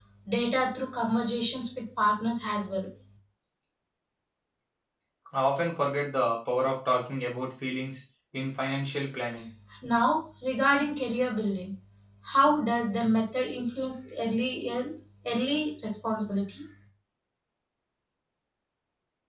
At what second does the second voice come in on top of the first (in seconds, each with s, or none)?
none